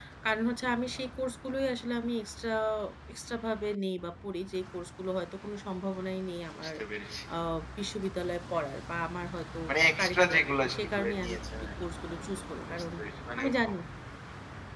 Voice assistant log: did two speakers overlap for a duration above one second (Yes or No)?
Yes